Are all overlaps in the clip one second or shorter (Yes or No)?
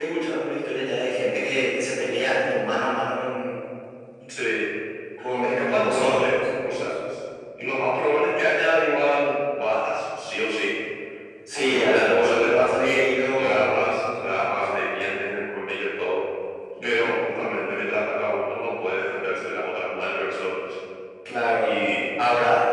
No